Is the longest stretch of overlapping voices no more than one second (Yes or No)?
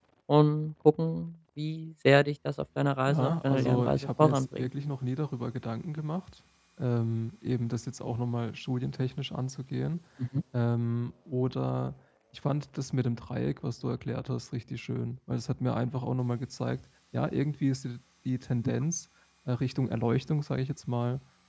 No